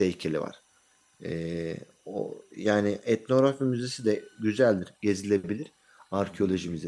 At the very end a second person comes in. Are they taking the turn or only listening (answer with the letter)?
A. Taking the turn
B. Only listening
B